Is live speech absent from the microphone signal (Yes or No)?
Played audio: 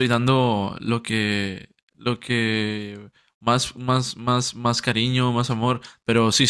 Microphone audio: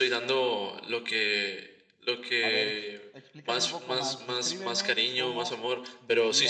No